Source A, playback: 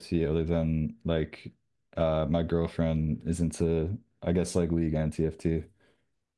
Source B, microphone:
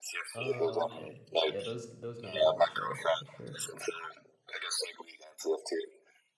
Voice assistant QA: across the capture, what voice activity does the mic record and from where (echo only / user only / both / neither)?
both